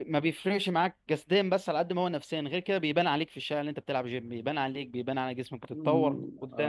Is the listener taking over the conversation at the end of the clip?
Yes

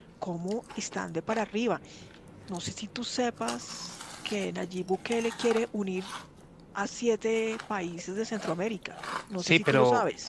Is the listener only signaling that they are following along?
No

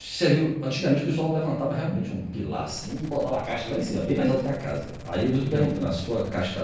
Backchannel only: Yes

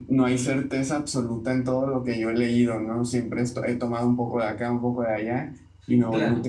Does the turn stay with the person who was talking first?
Yes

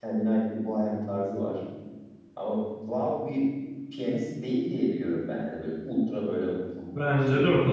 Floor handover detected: Yes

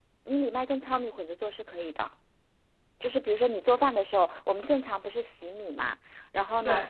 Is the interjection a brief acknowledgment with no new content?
Yes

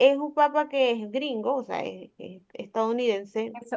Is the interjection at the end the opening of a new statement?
Yes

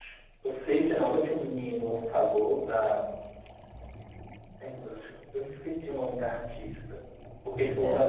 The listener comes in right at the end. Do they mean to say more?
No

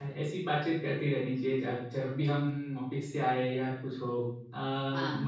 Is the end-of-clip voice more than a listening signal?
No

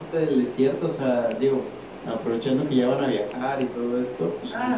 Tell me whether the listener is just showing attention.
No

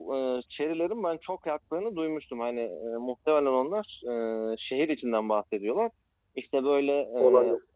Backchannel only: Yes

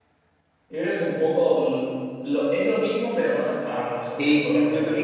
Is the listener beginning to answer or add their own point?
Yes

